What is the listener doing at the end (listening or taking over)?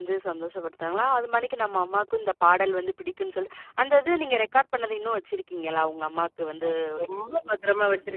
taking over